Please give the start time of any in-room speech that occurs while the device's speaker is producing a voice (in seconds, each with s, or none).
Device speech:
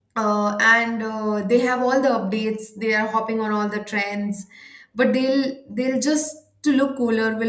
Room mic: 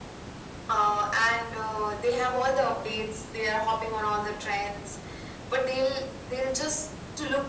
none